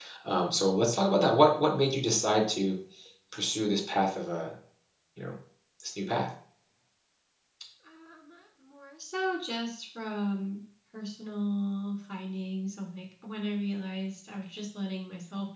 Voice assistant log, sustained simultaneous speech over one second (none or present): none